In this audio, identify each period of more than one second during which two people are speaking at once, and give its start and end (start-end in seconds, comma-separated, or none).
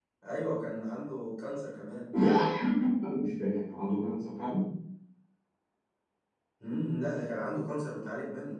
none